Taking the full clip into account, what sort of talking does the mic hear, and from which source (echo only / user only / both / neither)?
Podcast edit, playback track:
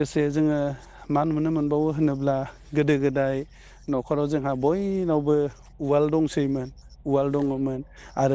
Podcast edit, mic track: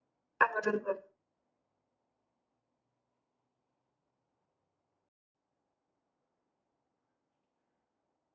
user only